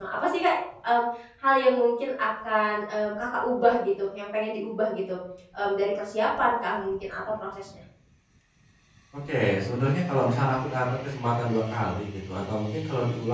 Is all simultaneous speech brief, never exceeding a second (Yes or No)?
Yes